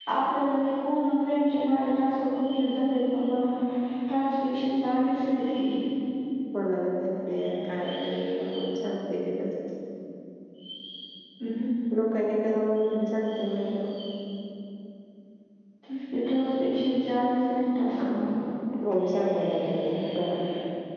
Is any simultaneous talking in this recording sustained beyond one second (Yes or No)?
No